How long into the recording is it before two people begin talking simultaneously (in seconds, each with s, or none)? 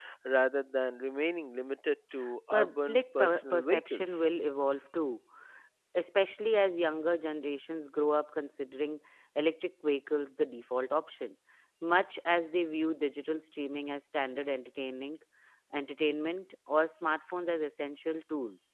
2.5 s